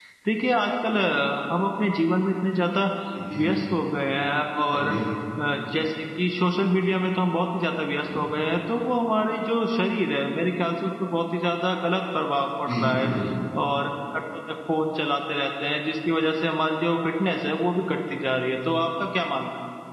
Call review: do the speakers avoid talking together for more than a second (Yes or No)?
Yes